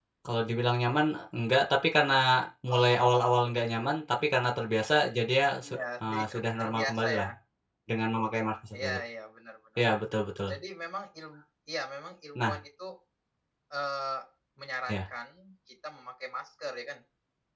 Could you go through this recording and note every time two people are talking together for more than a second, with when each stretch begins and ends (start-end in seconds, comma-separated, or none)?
5.6-7.3